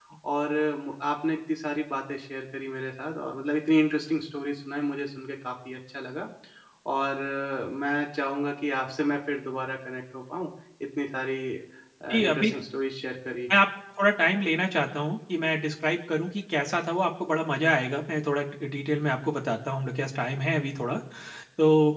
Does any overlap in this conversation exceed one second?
No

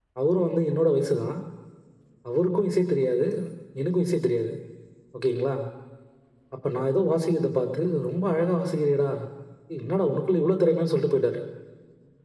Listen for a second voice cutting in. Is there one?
No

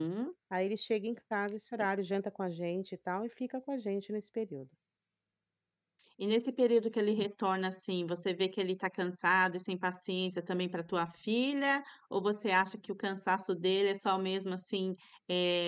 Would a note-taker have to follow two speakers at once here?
No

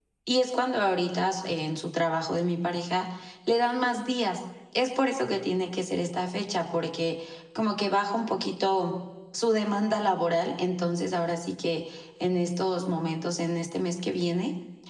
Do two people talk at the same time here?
No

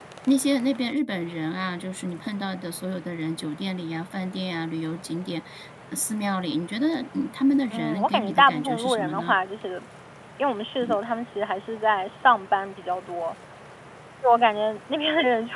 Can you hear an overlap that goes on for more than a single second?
Yes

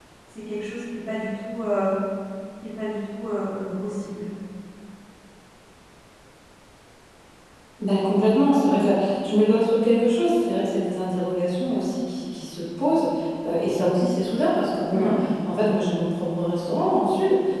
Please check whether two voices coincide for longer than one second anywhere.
No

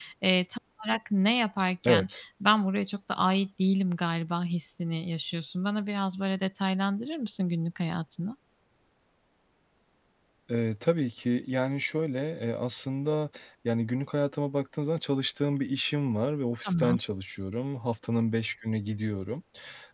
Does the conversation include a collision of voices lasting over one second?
No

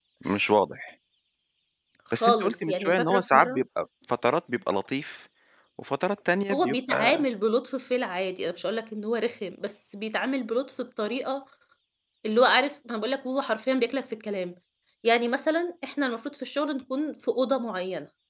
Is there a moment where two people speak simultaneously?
Yes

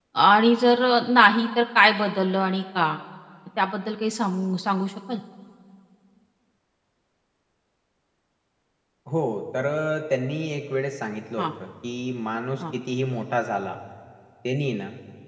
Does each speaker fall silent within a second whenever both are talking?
Yes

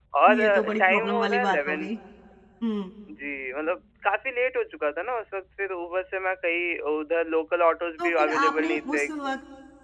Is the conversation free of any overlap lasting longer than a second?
No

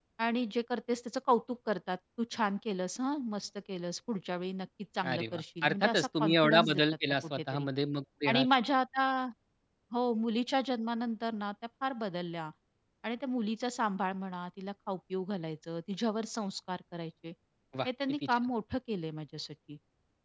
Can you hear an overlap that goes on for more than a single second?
Yes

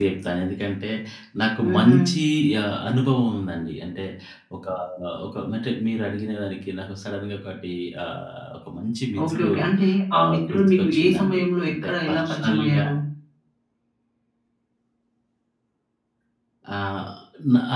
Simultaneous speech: Yes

